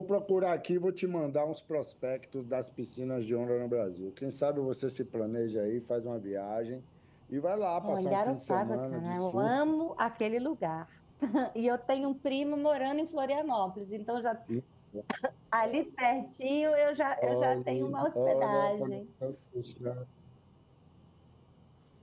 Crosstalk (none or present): present